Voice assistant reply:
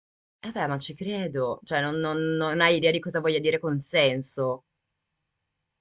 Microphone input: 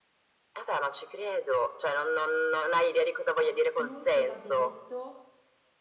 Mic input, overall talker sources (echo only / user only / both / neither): both